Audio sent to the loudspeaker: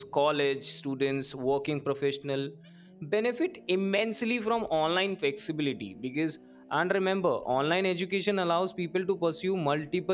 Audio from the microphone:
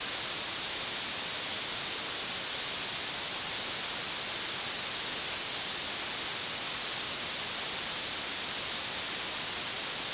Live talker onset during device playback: none

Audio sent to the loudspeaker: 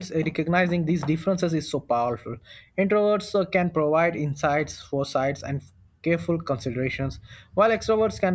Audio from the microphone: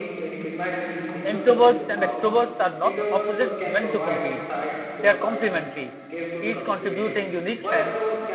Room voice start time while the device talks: 1.2 s

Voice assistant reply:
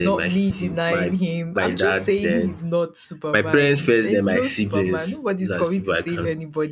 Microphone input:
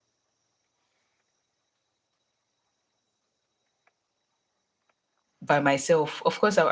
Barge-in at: 5.4 s

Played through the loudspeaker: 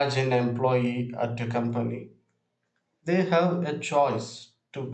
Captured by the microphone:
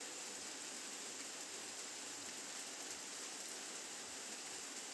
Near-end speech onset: none

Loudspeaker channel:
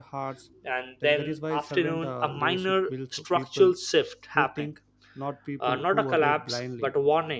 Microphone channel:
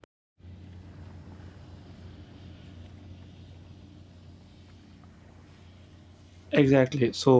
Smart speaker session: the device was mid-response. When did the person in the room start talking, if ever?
6.5 s

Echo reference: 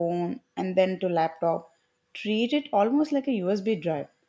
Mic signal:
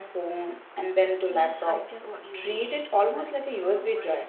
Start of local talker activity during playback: 1.3 s

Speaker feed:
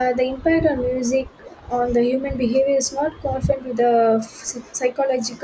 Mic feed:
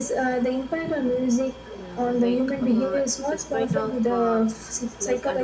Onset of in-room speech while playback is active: 1.6 s

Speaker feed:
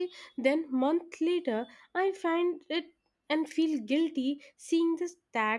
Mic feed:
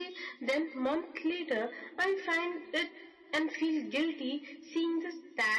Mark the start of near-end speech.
none

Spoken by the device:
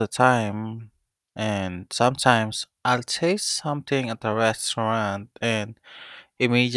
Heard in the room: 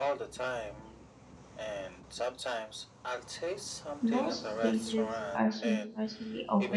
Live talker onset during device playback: 4.0 s

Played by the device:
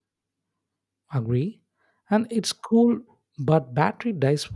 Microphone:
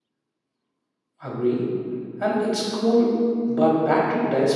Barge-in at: none

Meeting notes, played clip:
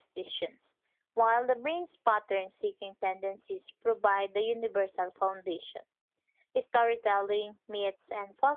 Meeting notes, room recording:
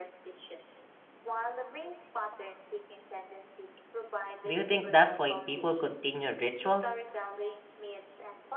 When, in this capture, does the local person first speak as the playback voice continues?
4.4 s

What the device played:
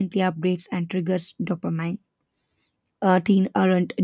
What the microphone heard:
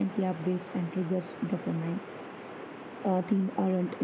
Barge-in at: none

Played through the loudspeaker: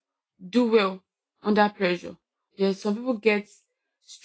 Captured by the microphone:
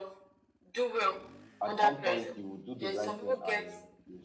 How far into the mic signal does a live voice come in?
1.6 s

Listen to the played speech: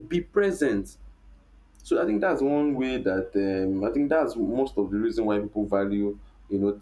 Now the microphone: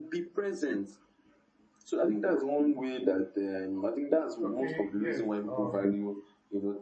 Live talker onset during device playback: 4.4 s

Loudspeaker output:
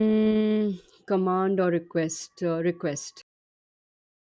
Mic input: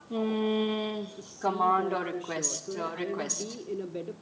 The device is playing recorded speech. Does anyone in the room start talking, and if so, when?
1.1 s

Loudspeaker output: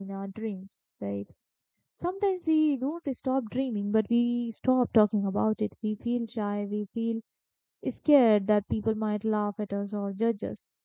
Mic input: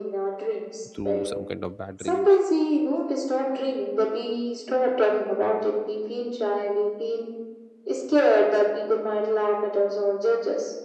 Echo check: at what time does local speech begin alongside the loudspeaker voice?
0.9 s

